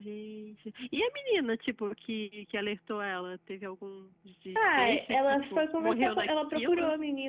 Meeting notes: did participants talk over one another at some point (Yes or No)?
Yes